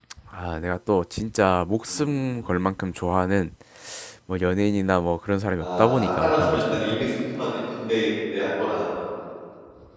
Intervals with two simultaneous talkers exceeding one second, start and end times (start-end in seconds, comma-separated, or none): 5.6-6.8